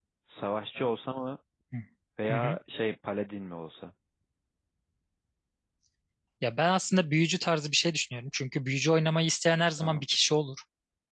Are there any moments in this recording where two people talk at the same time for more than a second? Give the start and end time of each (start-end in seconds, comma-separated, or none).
none